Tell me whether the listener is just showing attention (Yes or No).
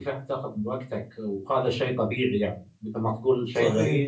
Yes